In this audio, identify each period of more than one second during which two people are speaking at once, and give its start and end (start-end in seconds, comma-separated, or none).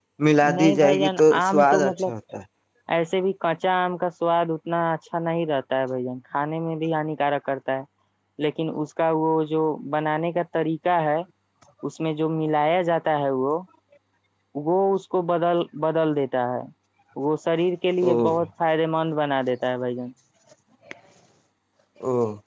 0.5-2.1